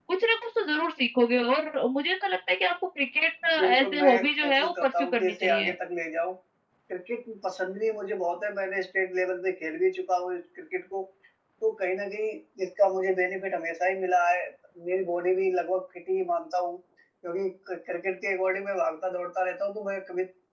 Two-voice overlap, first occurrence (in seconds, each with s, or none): 3.8 s